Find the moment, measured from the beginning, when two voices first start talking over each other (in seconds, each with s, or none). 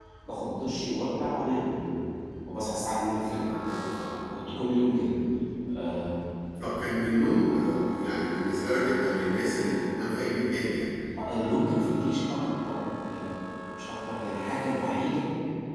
none